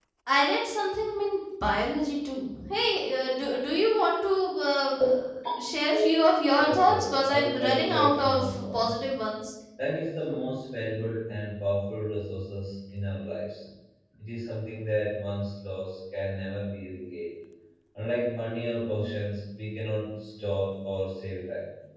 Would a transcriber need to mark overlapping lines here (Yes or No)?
Yes